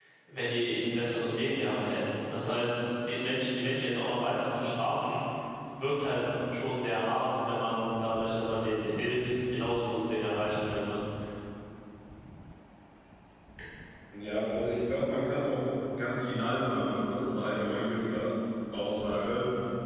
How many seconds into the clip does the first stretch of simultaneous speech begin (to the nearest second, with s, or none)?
none